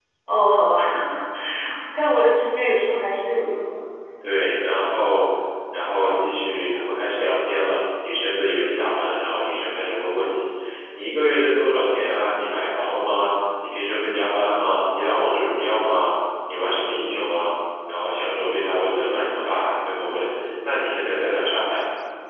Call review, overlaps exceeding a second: none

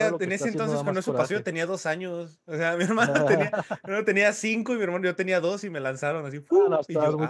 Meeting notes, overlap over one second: present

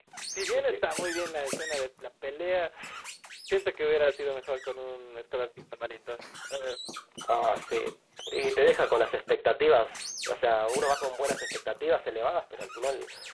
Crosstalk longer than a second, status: none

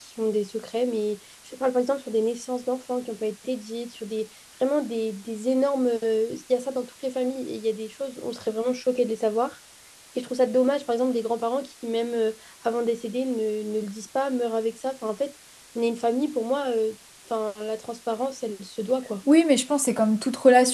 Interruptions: none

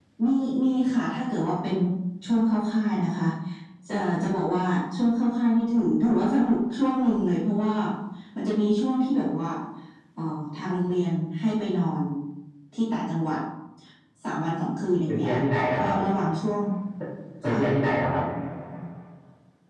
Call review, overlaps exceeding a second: none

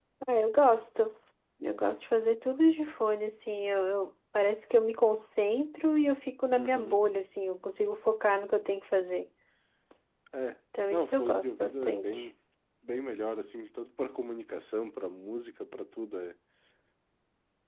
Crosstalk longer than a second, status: present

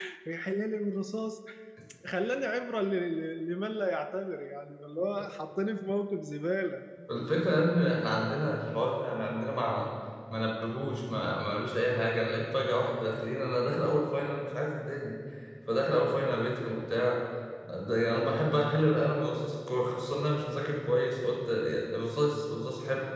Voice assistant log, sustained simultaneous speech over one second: none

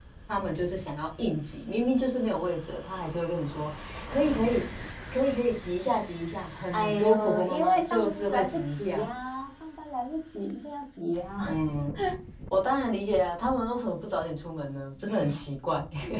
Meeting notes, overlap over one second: present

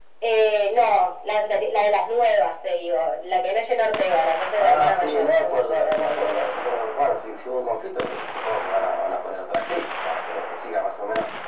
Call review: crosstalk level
present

